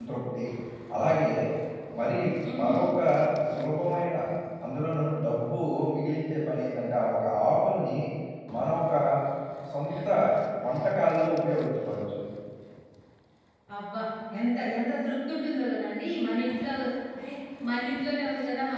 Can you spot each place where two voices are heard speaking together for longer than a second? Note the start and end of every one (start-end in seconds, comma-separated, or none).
none